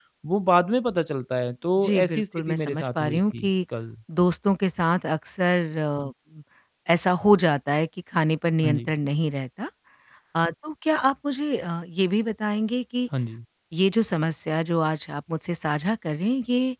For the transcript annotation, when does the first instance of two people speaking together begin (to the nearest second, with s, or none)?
2 s